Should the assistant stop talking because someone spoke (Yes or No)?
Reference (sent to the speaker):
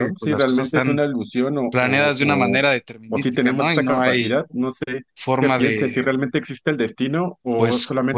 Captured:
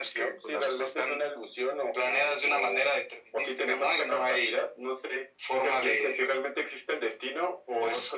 No